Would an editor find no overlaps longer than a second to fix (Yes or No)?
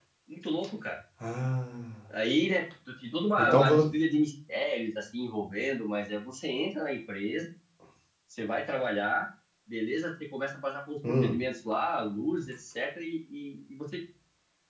Yes